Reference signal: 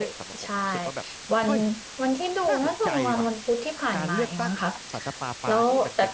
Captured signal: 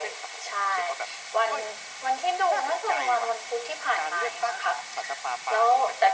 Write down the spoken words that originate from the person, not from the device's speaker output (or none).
none